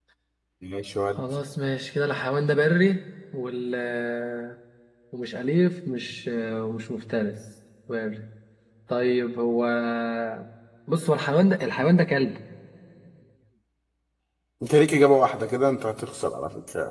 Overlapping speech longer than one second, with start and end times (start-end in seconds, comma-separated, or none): none